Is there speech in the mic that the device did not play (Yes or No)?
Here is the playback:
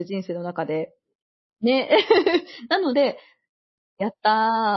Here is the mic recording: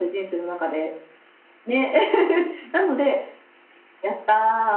No